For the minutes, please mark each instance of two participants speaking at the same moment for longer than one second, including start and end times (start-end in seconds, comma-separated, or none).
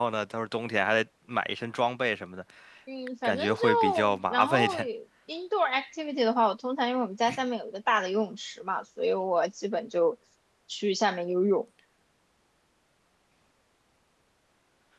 3.2-4.9